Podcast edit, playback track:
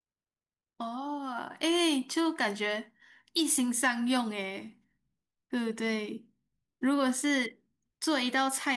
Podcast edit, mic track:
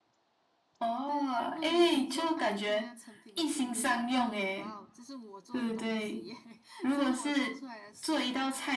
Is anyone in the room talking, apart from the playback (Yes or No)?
Yes